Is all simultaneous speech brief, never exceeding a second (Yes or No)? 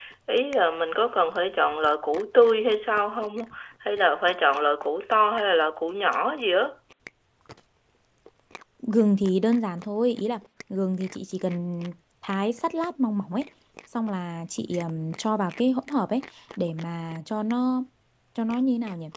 Yes